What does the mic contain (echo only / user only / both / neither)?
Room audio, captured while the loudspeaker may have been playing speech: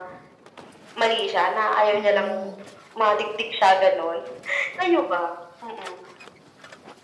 both